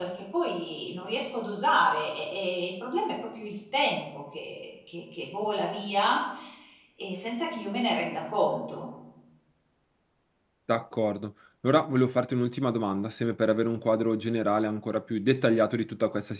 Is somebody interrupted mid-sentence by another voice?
No

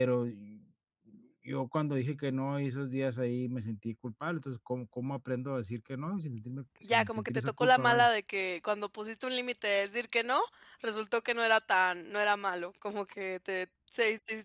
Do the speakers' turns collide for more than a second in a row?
Yes, from 6.8 s

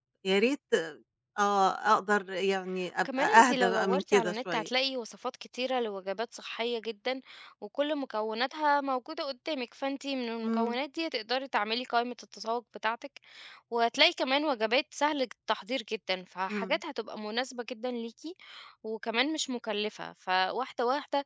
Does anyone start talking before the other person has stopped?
Yes, from 3.0 s

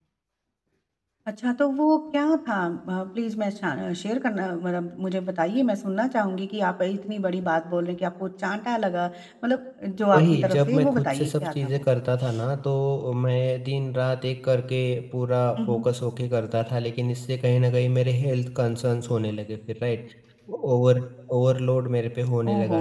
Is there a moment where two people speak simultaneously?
Yes, from 10.1 s

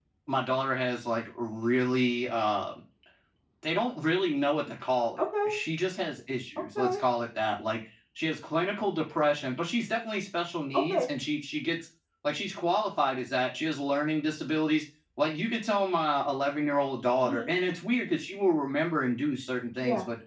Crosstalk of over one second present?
No

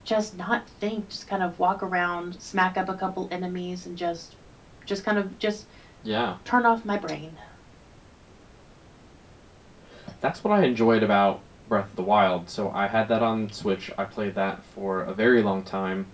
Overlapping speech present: No

